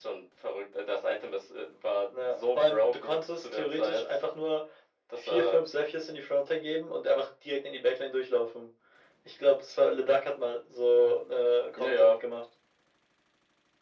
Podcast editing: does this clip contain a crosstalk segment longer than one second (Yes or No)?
Yes